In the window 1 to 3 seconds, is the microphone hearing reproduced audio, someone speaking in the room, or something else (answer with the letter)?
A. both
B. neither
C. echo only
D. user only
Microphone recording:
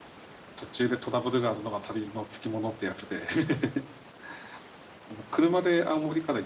D